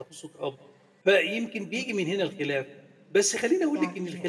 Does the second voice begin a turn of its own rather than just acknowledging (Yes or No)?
No